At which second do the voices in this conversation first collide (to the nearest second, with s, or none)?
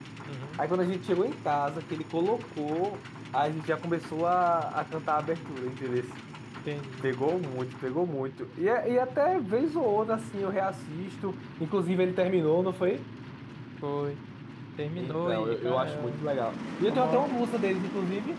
15 s